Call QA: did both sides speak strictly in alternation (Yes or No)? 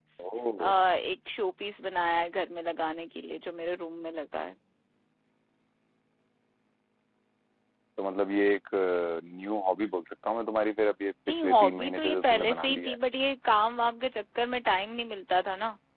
No